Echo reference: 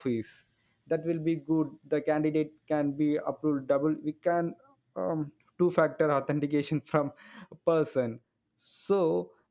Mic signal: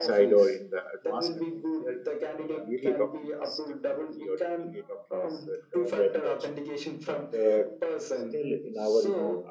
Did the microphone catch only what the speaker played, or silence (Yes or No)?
No